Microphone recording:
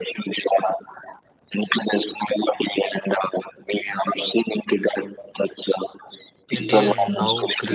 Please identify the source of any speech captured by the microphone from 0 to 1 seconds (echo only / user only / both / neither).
echo only